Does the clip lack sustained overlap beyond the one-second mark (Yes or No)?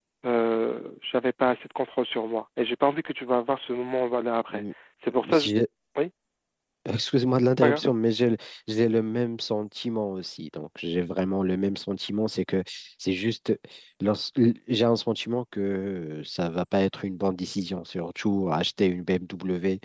Yes